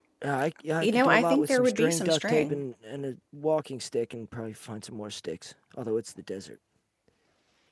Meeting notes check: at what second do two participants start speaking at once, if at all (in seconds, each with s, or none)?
0.8 s